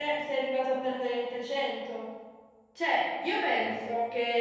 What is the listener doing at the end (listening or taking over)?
listening